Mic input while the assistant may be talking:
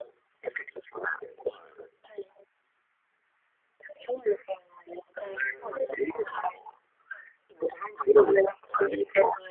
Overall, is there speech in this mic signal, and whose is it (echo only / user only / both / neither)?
both